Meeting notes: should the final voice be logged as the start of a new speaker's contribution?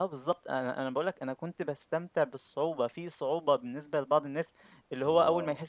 No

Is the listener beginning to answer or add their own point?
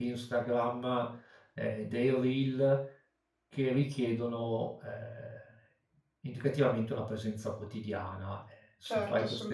Yes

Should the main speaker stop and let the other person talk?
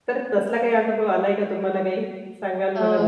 Yes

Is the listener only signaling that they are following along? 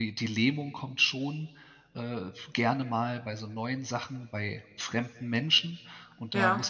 Yes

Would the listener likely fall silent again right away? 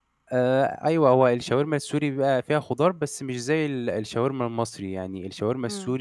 Yes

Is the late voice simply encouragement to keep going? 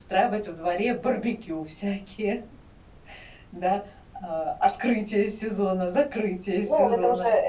No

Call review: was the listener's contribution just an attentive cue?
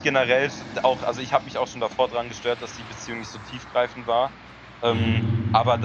Yes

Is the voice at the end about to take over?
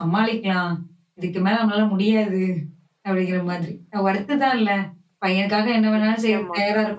No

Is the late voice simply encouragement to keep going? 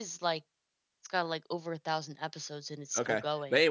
No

